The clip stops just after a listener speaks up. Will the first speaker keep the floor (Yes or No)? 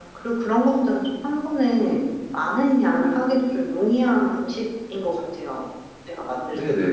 No